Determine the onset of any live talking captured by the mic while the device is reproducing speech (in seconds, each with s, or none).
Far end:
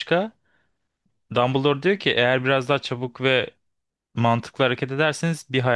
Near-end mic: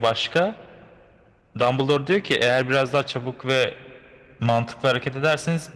none